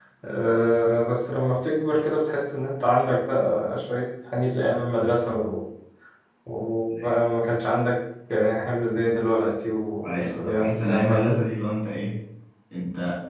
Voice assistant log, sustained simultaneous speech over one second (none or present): present